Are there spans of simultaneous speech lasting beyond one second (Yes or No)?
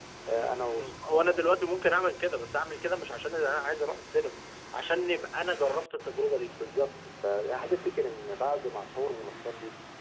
No